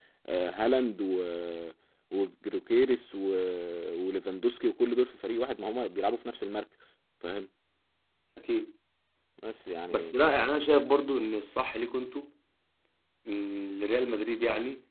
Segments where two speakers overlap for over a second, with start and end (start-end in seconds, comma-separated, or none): none